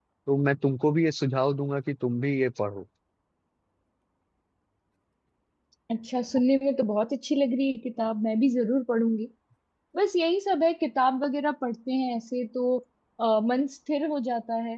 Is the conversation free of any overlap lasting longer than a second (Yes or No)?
Yes